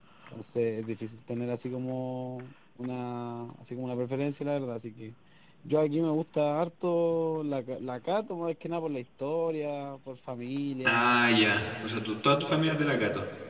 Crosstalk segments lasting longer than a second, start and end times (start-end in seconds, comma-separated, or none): none